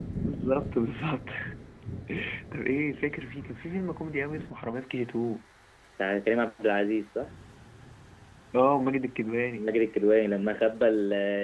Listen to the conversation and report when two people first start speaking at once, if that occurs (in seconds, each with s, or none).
none